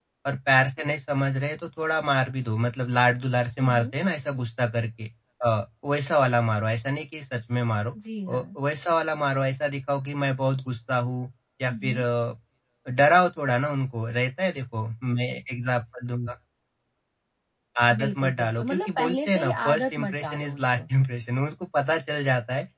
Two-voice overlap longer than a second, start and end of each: 18.0-20.8

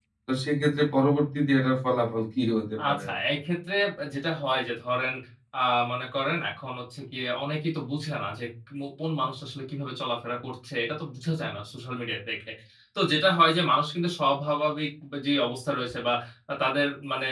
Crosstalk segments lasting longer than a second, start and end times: none

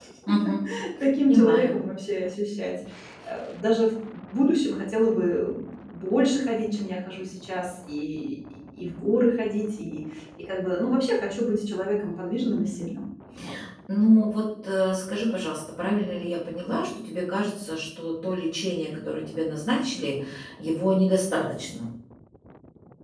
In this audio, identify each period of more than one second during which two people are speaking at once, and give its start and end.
none

